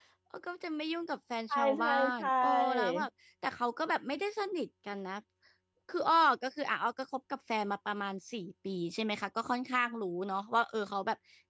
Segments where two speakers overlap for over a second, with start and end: 1.5-3.0

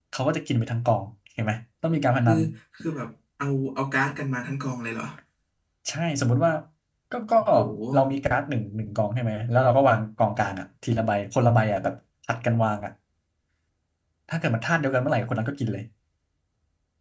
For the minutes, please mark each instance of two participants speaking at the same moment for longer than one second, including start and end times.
none

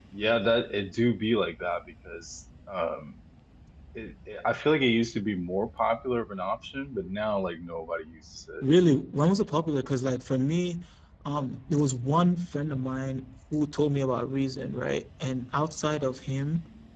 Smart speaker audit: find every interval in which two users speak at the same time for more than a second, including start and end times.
none

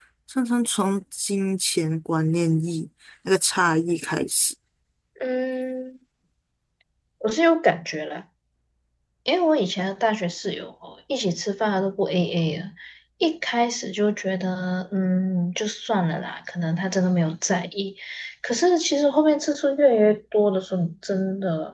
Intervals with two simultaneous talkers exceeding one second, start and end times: none

